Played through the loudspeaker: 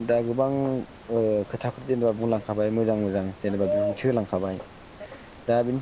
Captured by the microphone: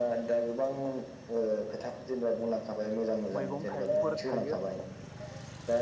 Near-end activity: present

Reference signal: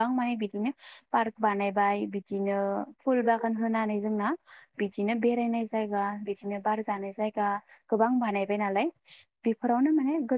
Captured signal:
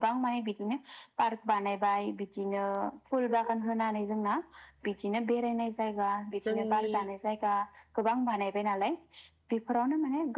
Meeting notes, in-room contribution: present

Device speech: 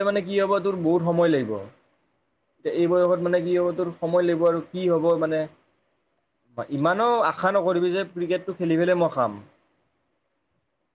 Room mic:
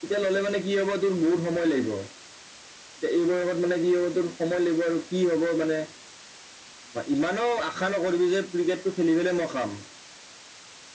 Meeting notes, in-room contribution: none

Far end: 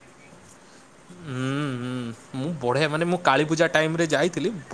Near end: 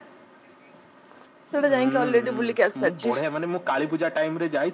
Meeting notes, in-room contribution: present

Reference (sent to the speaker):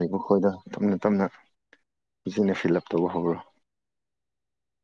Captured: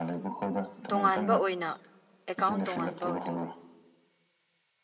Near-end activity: present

